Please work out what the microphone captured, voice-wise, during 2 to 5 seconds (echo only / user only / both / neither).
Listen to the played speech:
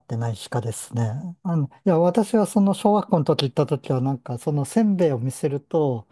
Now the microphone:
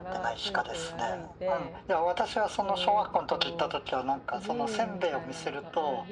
both